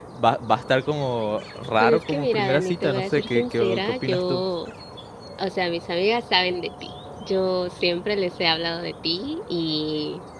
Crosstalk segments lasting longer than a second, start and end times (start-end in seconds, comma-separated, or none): 1.8-4.4